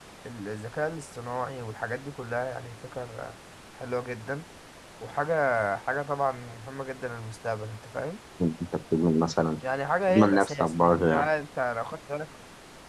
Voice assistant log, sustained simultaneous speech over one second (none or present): present